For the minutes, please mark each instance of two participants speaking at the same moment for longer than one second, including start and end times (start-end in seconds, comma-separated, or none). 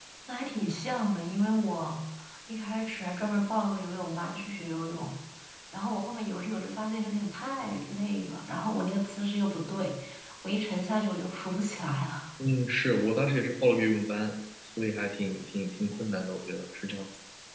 none